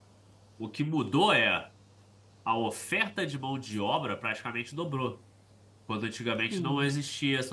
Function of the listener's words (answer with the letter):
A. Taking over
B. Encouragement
B